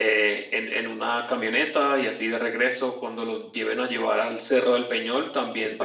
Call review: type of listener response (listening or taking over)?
listening